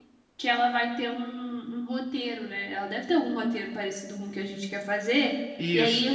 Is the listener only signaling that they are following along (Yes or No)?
Yes